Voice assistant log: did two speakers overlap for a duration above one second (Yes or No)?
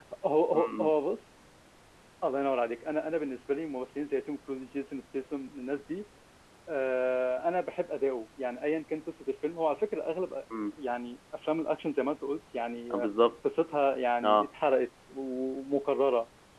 No